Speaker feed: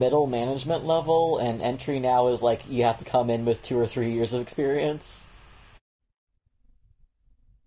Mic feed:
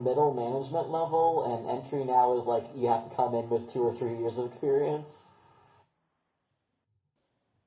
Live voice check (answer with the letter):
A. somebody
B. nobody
B